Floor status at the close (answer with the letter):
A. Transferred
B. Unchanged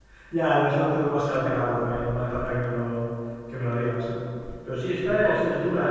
B